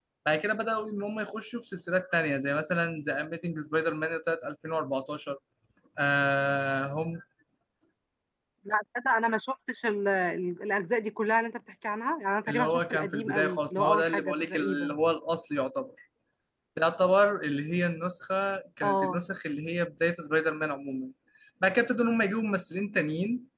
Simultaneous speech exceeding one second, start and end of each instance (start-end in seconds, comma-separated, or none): 12.5-15.0